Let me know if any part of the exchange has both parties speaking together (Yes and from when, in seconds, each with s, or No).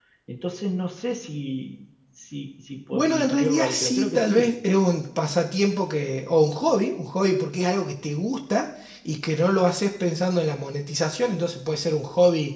Yes, from 2.9 s